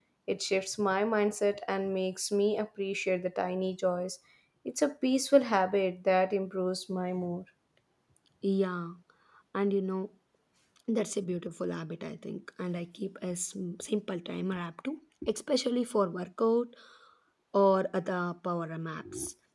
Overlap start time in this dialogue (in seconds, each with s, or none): none